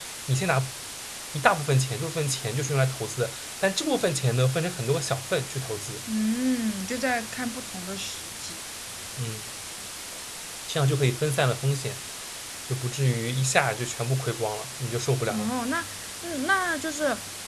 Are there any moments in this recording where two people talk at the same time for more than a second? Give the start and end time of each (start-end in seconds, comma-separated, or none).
none